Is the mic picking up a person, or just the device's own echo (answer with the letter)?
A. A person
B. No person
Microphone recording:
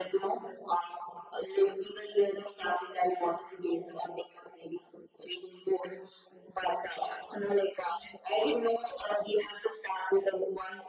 B